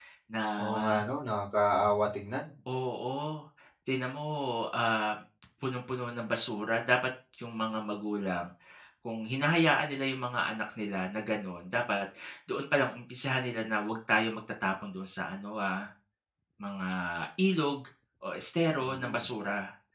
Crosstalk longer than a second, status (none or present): none